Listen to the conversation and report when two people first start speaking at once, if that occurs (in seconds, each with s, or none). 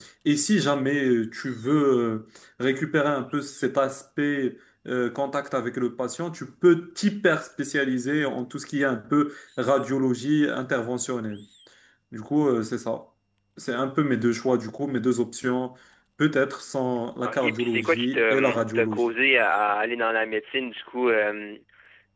17.2 s